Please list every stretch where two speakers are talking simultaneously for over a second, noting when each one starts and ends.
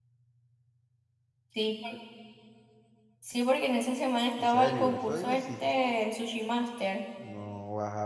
4.4-5.7

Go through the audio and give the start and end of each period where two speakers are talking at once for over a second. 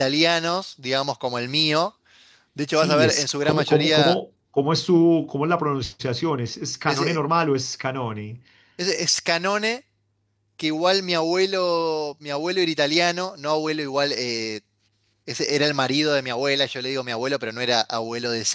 2.7-4.2

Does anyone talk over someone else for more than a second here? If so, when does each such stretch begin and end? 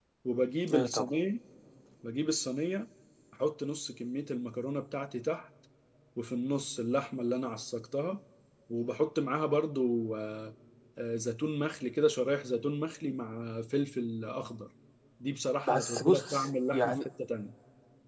15.7-17.0

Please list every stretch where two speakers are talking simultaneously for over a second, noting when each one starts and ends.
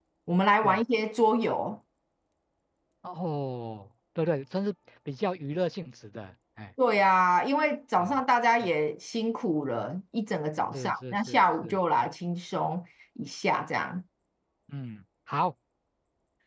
10.7-12.1

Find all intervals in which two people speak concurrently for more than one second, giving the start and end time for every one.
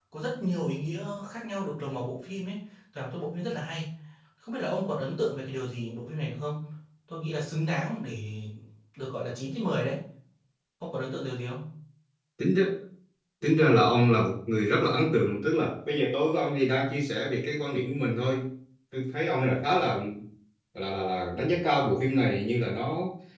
none

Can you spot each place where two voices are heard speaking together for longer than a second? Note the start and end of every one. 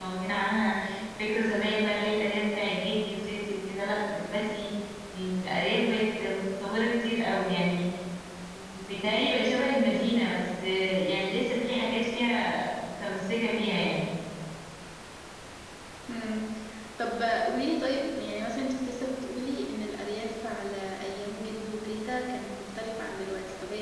none

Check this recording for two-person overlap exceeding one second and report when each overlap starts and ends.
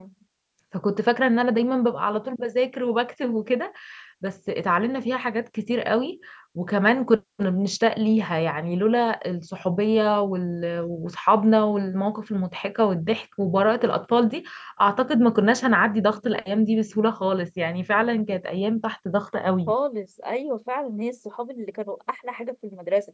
none

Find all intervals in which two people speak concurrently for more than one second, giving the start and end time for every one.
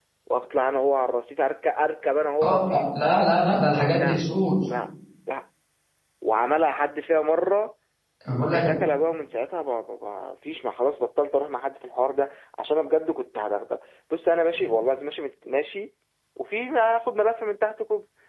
none

